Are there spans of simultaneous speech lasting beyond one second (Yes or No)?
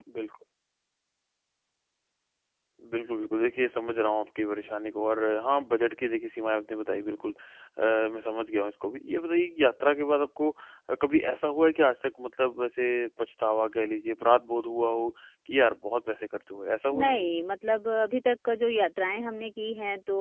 No